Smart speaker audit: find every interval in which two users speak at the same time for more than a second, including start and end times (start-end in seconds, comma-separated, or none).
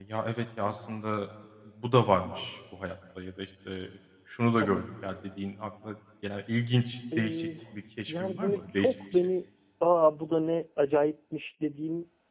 8.1-9.3